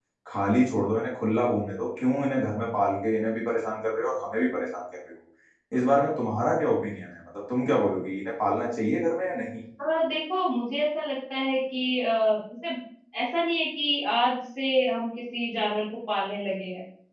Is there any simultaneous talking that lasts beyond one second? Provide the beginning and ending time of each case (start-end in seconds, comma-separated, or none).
none